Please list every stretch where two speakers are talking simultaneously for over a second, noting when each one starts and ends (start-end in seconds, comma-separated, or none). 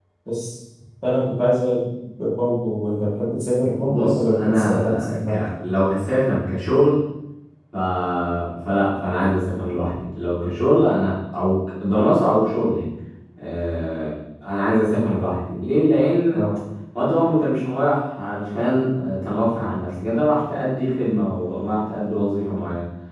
3.8-5.4